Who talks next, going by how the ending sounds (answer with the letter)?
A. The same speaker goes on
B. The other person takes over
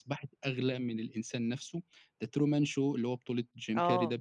B